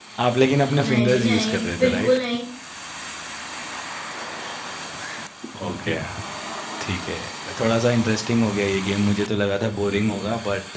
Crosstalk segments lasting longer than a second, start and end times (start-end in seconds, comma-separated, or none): 0.9-2.2